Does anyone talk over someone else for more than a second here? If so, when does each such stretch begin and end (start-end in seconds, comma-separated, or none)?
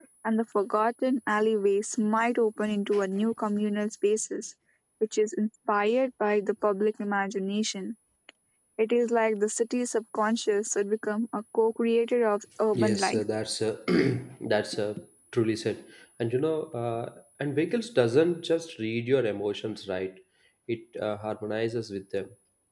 none